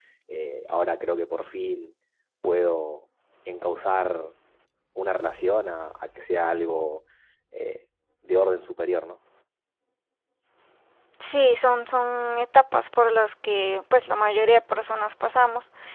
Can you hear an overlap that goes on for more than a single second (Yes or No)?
No